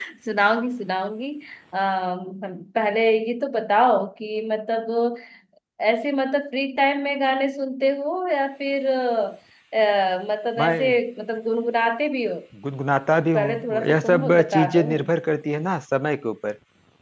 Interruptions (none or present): present